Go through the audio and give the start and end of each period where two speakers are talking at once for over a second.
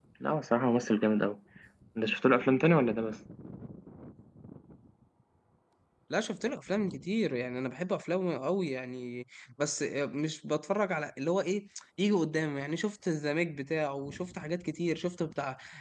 none

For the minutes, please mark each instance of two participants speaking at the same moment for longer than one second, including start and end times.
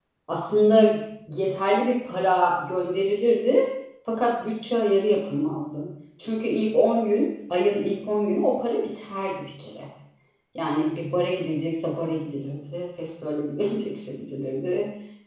none

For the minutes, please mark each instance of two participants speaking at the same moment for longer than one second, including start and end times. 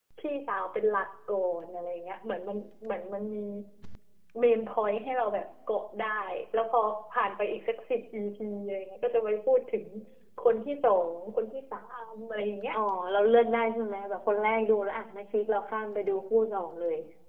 none

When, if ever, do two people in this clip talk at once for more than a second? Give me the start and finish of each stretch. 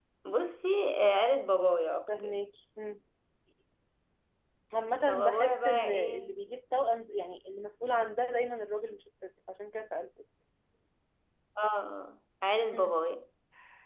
5.1-6.3

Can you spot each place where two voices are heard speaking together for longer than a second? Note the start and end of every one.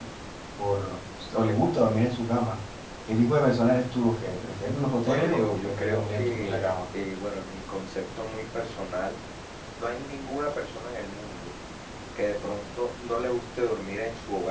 5.0-6.7

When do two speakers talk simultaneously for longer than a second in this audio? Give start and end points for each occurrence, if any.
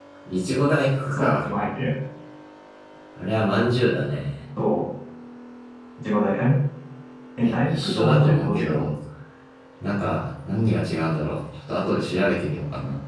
7.4-8.9

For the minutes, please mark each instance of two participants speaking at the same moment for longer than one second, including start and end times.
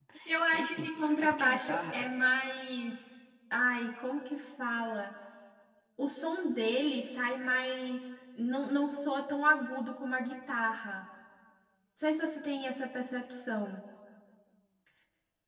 0.5-2.1

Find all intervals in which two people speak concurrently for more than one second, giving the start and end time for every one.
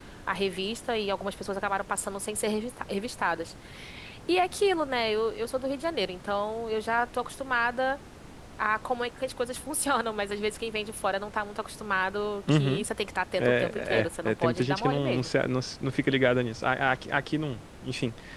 13.4-15.3

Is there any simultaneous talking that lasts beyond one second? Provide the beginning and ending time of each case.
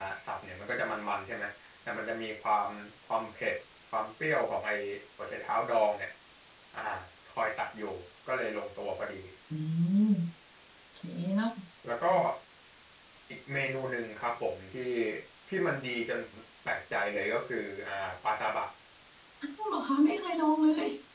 none

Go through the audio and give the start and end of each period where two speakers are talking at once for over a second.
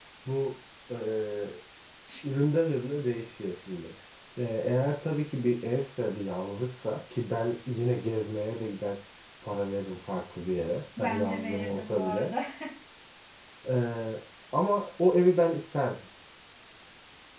11.0-12.3

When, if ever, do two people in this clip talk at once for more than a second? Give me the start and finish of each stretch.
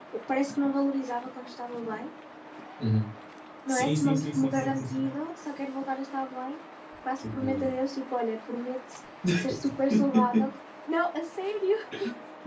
3.7-5.1

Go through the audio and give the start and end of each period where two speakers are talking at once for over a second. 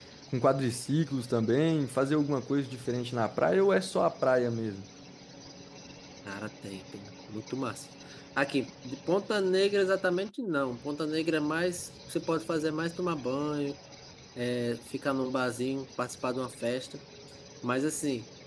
none

